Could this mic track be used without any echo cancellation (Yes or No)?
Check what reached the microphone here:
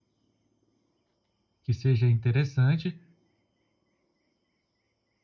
Yes